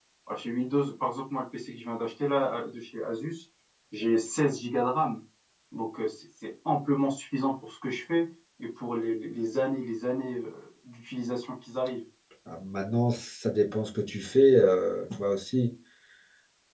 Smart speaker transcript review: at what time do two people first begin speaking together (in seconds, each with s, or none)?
none